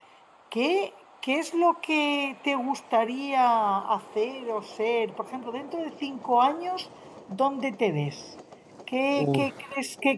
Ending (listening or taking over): listening